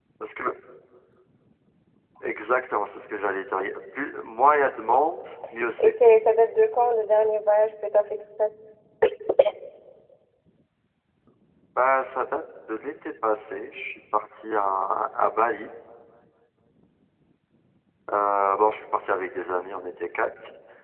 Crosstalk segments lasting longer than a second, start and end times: none

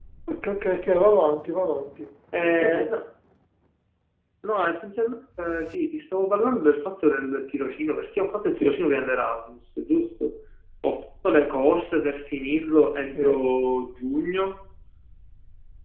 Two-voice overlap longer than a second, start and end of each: none

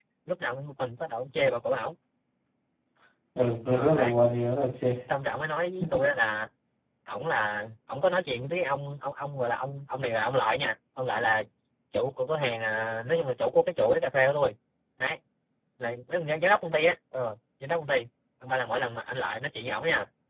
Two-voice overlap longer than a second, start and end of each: none

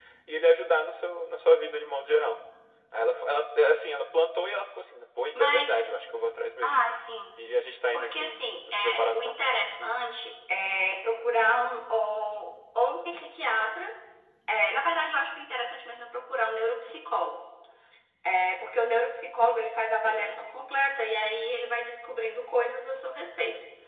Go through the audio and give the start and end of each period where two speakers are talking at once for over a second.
7.9-9.4

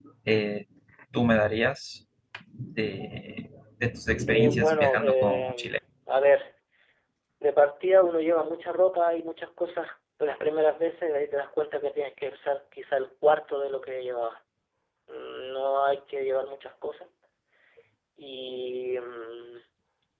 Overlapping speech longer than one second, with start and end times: 4.3-5.8

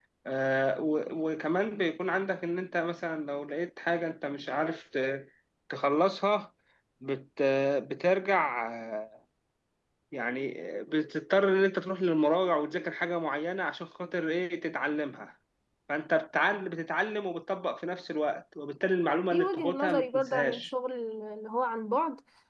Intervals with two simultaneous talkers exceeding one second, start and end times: 19.3-20.6

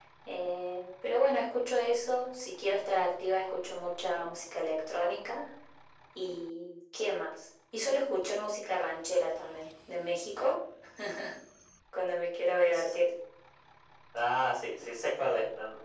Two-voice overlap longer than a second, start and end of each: none

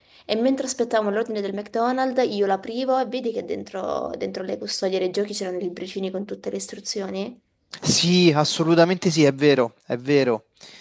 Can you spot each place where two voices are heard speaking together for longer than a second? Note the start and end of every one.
none

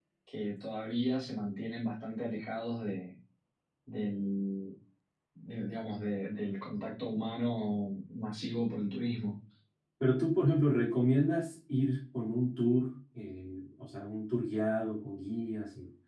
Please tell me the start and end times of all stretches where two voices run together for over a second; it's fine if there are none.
none

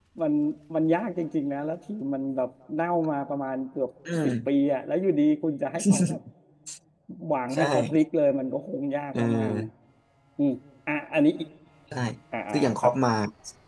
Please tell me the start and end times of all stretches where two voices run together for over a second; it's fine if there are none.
none

